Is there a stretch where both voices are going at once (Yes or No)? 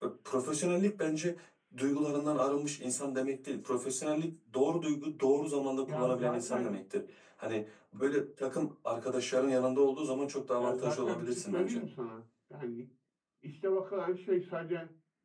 Yes